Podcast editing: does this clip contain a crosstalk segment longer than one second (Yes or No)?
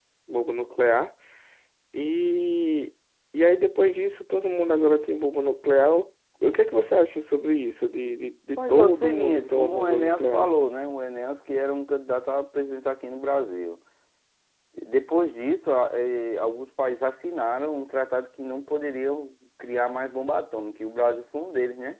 Yes